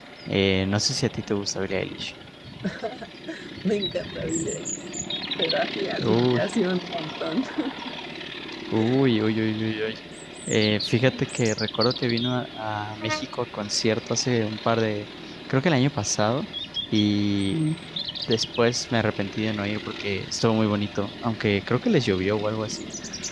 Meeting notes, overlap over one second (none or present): none